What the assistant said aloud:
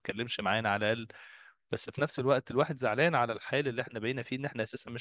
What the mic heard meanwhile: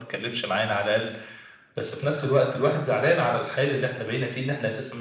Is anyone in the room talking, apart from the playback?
No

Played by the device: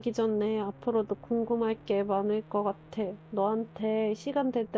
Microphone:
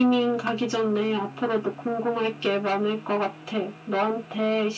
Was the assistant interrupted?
No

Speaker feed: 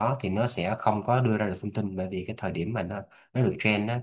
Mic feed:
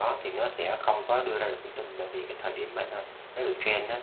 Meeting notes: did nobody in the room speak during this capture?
Yes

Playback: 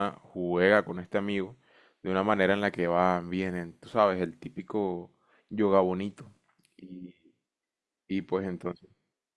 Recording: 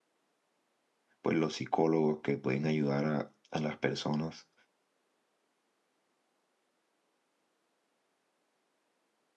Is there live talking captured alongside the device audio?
Yes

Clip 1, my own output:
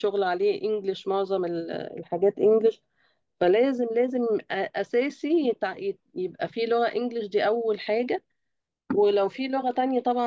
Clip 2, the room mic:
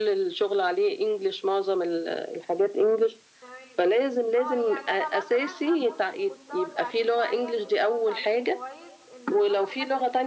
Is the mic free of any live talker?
No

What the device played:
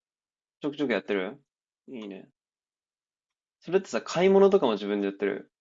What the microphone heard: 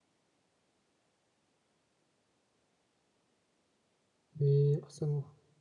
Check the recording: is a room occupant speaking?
Yes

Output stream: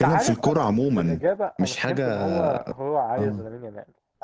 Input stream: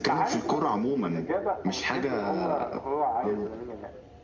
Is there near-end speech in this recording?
No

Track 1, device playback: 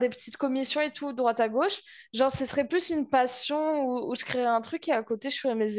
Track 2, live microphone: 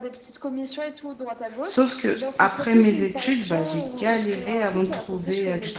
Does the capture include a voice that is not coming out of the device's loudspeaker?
Yes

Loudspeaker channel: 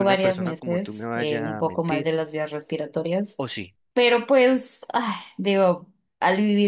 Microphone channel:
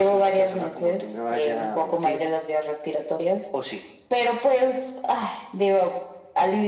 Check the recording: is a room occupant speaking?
No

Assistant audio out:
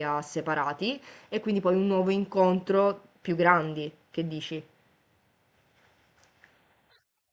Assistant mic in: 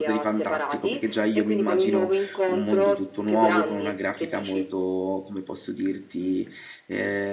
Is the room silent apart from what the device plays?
No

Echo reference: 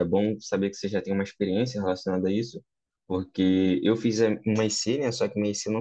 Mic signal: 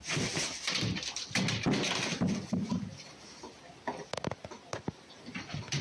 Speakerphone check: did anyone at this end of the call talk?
No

